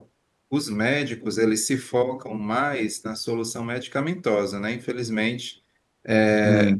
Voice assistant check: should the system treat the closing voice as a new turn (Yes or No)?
No